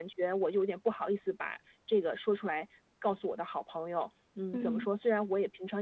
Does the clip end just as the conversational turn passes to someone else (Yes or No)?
No